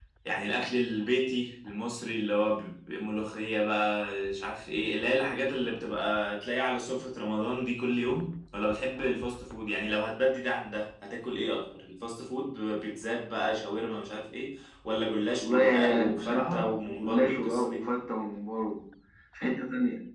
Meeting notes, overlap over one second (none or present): present